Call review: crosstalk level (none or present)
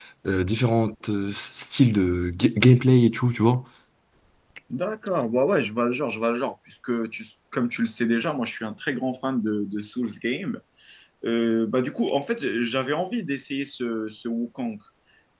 none